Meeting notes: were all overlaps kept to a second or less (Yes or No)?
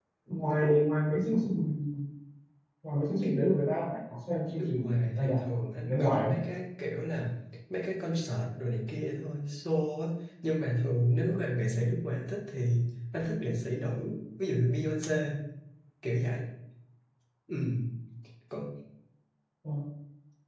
No